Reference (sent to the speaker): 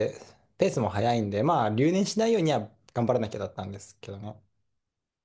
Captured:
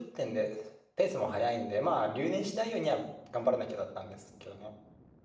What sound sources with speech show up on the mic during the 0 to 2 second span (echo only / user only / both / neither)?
echo only